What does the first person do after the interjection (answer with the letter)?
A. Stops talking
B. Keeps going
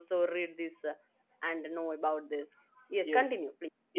A